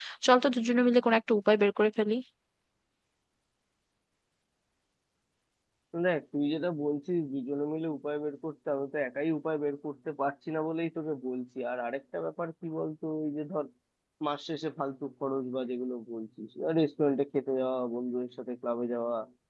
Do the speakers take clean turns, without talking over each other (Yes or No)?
Yes